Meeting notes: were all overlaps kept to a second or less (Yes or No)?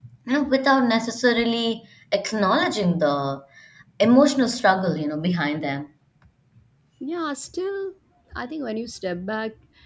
Yes